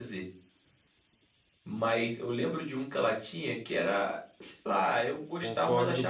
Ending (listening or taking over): taking over